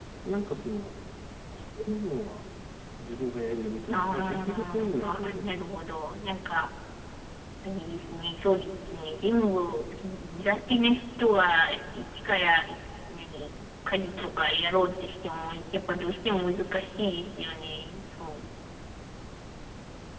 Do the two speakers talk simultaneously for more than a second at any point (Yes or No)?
Yes